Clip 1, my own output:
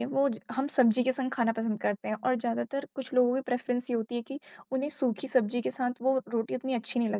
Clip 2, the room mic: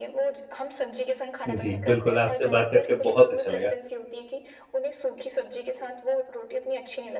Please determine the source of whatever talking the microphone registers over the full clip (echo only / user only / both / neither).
both